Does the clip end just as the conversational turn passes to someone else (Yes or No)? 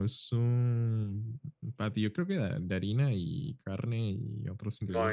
Yes